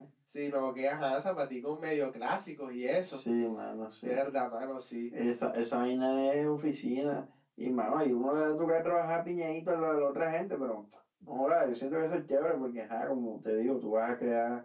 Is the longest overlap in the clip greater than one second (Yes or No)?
No